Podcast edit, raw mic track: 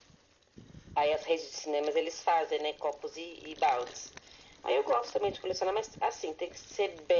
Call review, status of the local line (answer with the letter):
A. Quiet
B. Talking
A